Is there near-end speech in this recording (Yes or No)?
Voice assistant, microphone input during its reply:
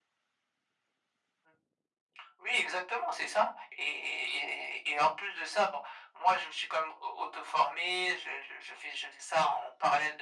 No